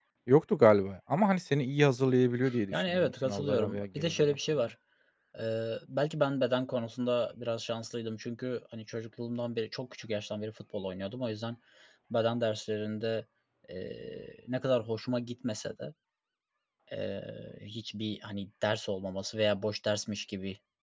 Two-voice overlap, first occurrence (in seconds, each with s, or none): 2.7 s